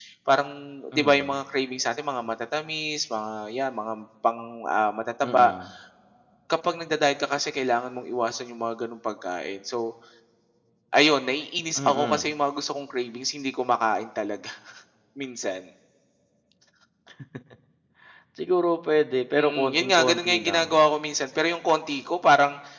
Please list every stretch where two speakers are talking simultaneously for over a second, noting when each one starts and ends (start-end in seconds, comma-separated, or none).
19.4-20.8